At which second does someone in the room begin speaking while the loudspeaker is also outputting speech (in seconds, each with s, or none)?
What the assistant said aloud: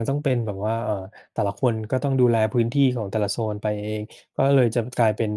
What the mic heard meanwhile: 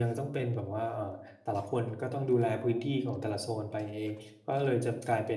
none